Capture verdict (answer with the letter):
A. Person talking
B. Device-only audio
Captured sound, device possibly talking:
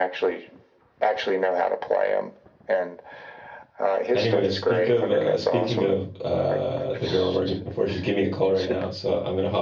A